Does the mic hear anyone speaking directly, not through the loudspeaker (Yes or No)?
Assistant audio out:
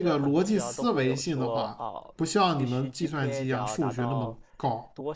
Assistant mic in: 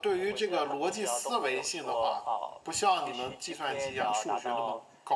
No